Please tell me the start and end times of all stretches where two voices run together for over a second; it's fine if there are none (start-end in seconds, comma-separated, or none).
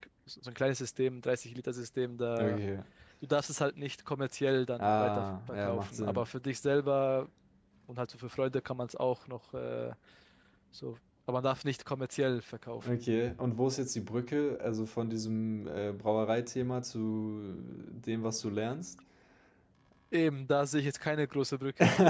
4.8-6.3